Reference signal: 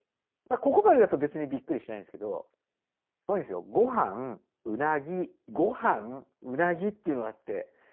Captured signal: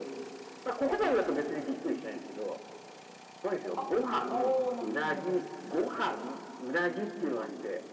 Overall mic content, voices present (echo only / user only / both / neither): both